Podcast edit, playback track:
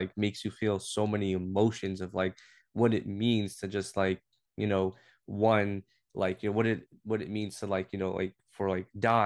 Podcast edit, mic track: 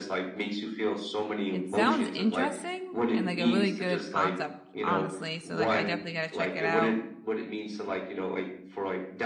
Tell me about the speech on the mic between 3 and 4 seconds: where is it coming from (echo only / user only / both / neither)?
both